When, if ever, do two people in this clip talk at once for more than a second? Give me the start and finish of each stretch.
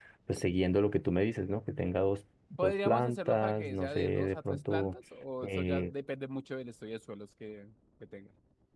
2.6-5.0

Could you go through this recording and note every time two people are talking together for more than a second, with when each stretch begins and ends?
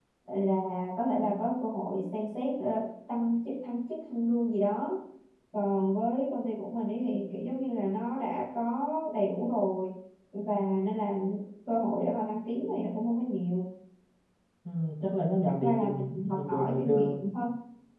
15.5-17.3

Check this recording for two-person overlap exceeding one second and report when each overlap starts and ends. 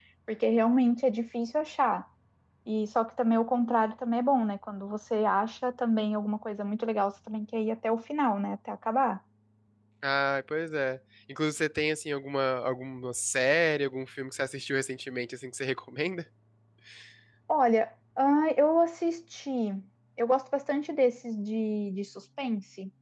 none

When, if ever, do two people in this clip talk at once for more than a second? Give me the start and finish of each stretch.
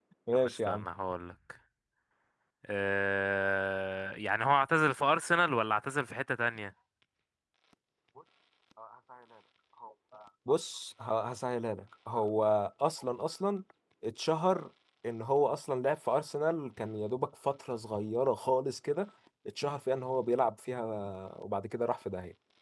none

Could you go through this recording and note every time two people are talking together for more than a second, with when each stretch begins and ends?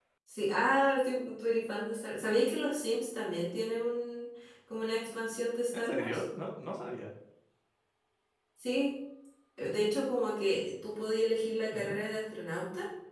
none

